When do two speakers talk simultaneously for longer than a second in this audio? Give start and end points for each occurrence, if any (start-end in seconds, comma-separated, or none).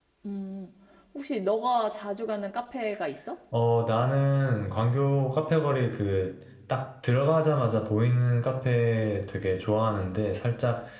none